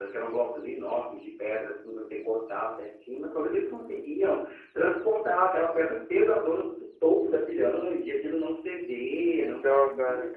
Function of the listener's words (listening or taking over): listening